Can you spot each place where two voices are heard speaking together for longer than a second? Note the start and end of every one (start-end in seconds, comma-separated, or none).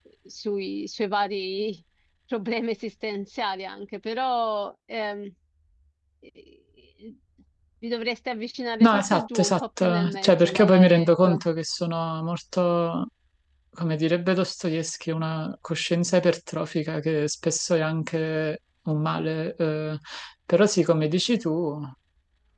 8.8-11.4